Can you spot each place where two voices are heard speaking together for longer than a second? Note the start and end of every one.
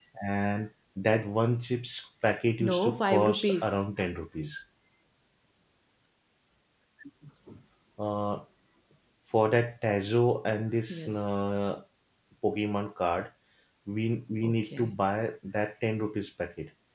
2.6-3.8

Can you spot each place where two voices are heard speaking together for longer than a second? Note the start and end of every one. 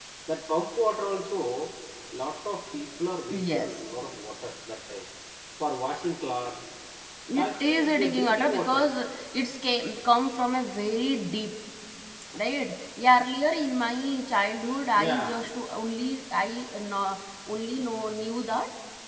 7.3-8.9

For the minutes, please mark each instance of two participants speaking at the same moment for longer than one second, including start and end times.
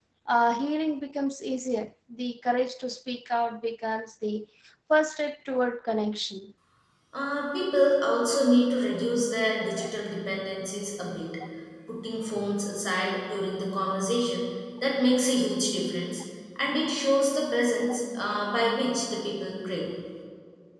none

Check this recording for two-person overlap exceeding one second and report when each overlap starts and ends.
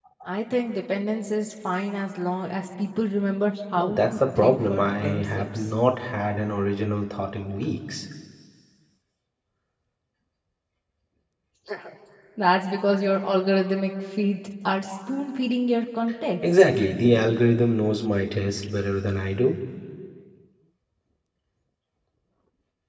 3.8-5.7

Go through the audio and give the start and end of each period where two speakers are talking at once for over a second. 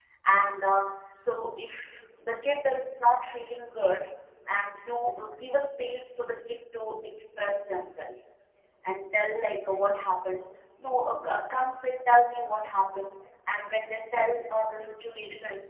none

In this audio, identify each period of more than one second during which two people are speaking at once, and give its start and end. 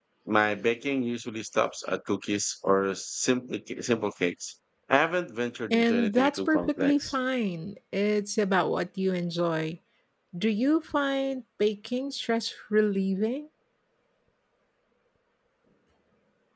5.7-7.1

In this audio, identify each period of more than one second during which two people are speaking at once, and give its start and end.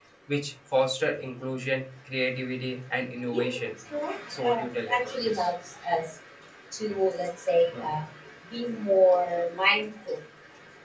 4.3-5.5

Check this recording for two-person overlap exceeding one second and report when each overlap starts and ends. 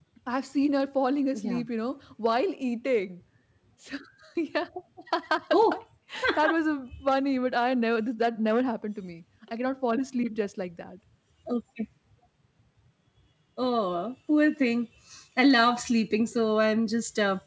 none

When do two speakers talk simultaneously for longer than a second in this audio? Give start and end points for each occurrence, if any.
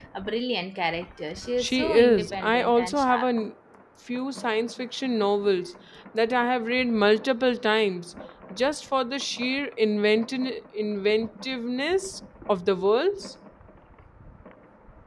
1.6-3.3

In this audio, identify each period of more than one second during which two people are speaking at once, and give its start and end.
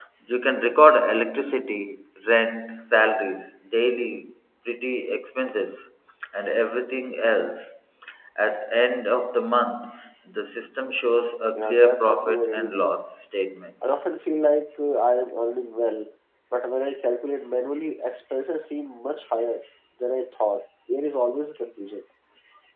11.6-12.9

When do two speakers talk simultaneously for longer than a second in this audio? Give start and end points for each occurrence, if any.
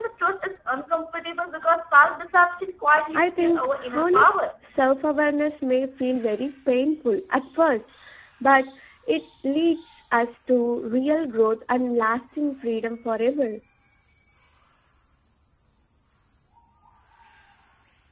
3.1-4.4

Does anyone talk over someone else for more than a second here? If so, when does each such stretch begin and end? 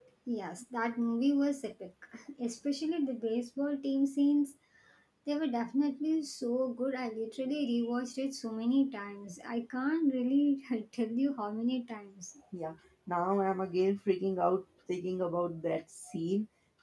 none

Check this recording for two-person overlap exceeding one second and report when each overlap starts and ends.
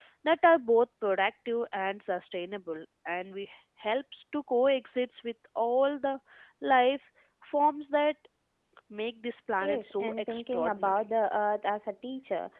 9.6-11.0

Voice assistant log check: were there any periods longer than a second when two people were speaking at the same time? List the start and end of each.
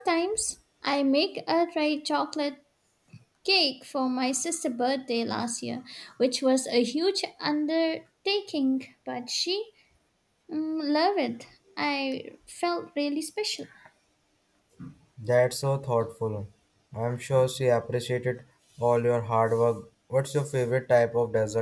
none

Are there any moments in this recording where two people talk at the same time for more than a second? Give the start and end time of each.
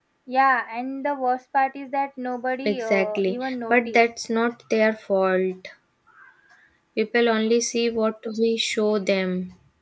2.6-4.0

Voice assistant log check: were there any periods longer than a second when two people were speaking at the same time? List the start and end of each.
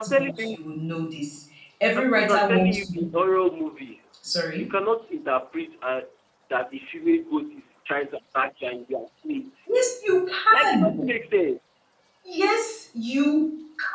1.9-3.2

